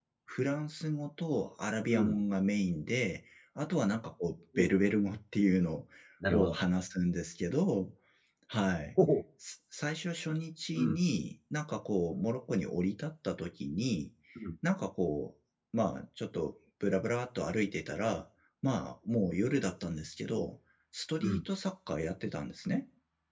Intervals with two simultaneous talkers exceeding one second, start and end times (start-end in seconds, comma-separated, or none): none